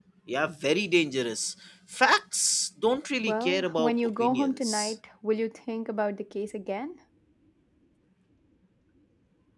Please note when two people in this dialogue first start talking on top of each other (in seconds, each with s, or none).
3.2 s